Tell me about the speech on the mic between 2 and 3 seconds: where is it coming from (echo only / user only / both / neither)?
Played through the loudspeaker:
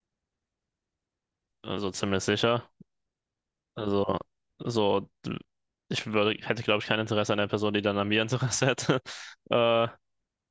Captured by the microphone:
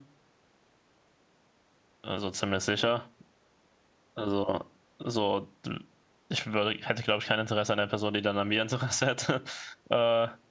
echo only